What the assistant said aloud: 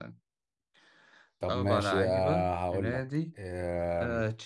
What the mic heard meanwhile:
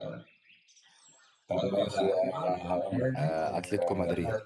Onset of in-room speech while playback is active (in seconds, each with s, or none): 3.2 s